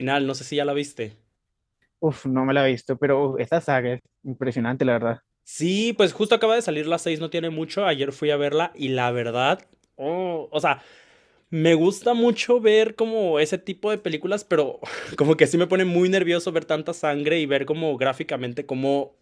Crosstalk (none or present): none